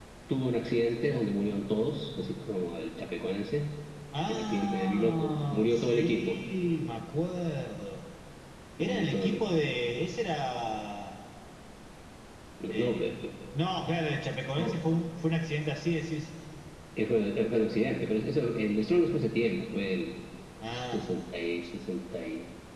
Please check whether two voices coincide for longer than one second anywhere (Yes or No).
Yes